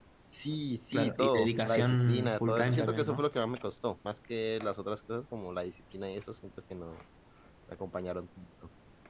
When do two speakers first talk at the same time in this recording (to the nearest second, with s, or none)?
1 s